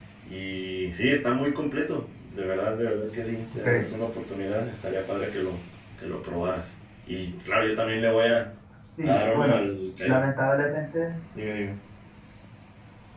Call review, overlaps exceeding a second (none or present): none